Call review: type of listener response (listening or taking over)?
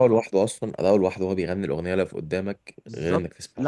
taking over